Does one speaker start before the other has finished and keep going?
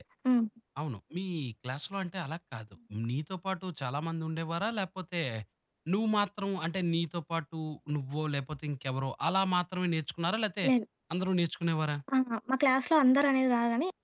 No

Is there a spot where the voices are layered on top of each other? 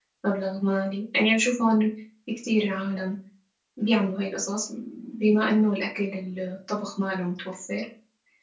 No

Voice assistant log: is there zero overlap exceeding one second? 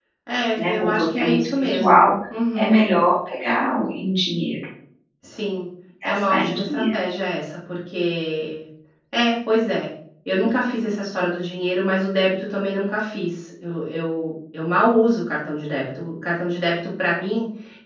No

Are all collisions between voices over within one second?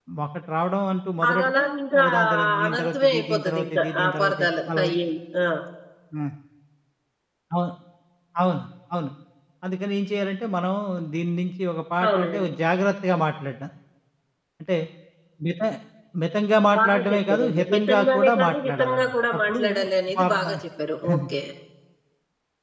No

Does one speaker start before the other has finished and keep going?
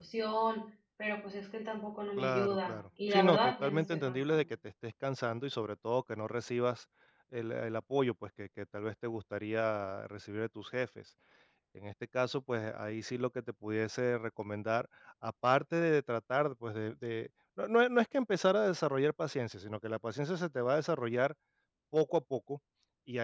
Yes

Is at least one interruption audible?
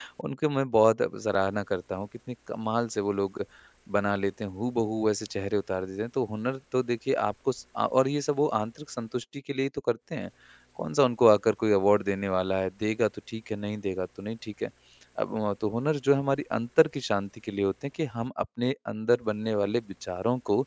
No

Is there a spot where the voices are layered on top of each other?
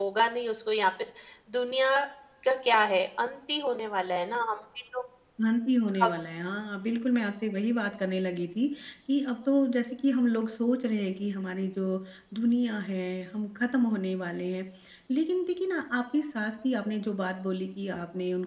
No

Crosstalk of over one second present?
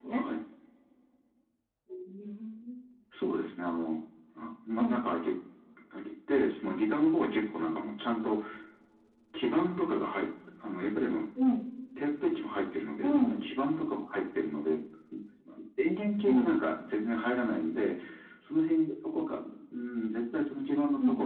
No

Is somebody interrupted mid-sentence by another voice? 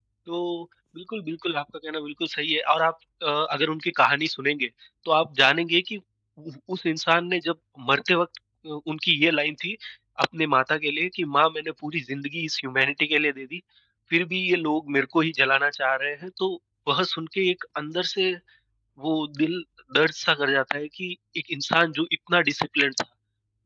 No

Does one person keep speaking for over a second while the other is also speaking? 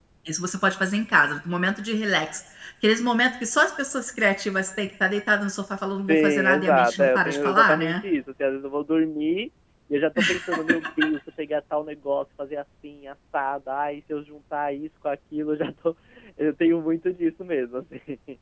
Yes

